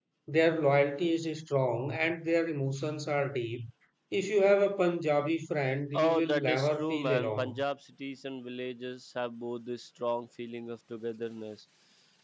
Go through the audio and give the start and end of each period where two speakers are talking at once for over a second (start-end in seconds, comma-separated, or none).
5.9-7.5